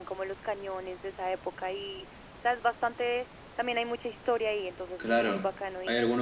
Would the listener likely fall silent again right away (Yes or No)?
No